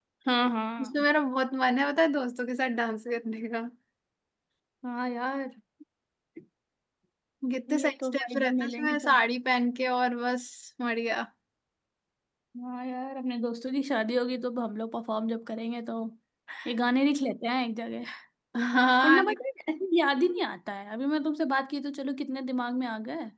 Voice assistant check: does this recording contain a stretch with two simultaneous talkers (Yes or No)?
Yes